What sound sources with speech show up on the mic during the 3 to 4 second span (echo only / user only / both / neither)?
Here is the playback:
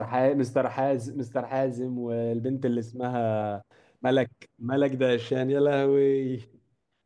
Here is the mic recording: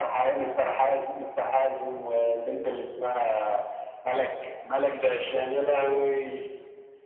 echo only